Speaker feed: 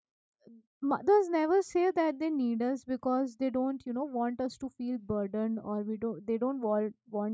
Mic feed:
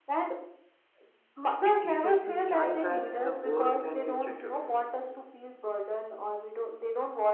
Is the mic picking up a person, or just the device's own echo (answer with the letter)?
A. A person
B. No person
A